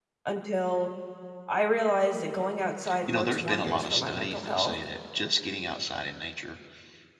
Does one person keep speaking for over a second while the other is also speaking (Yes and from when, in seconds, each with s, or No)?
Yes, from 2.8 s